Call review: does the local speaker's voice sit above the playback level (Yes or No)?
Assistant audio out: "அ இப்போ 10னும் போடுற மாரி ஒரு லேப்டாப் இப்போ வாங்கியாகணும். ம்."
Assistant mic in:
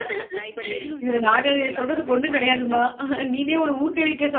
Yes